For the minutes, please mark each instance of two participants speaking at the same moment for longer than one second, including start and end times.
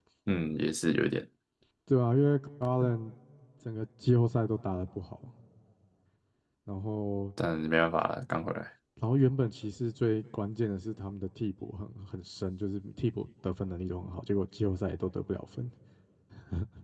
none

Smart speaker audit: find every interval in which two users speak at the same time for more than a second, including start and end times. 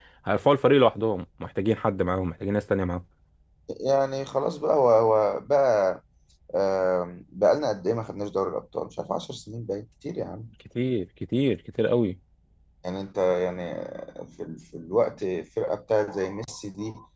none

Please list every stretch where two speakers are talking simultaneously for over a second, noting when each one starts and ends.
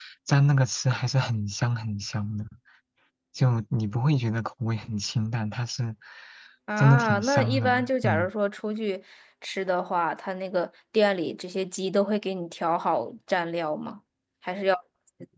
6.8-8.3

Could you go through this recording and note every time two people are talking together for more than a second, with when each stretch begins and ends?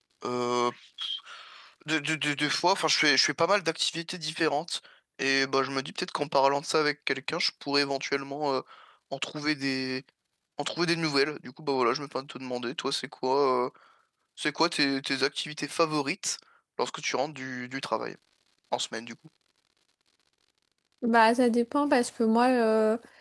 none

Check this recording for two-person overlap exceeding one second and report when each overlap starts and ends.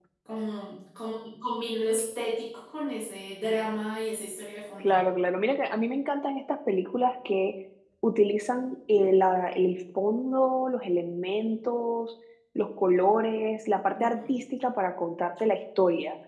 none

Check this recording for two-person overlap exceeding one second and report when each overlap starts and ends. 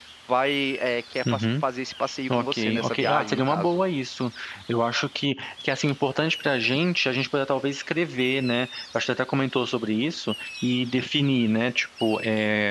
2.3-3.8

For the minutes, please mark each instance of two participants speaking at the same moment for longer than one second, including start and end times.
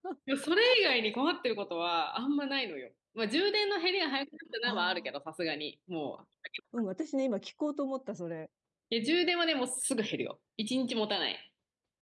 none

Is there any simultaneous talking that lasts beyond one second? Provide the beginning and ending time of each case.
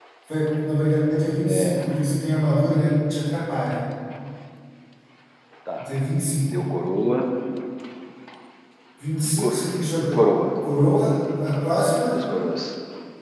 none

